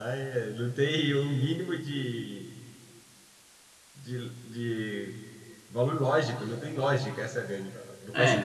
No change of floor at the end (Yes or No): No